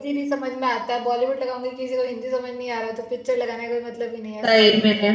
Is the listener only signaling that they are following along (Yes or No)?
No